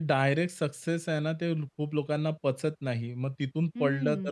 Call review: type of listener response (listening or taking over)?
listening